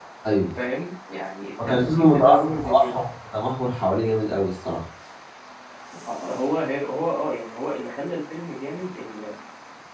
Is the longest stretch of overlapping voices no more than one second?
No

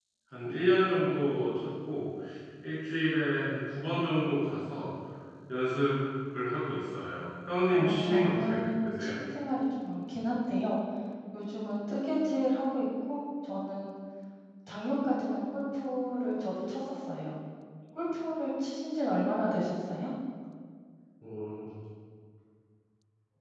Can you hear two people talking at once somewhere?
Yes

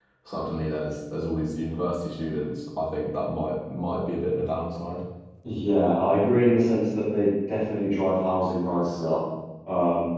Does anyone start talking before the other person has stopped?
No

